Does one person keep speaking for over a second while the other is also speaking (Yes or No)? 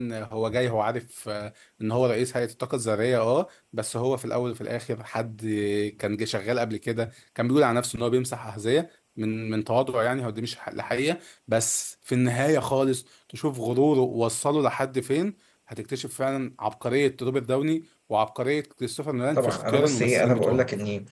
Yes